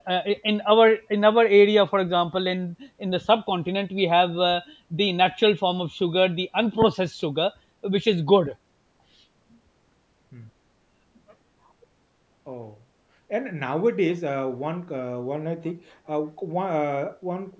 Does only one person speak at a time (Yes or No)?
Yes